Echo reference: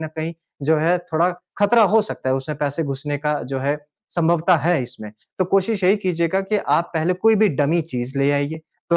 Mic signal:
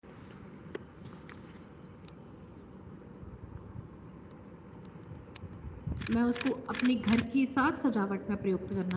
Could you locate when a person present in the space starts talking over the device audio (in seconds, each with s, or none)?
6.1 s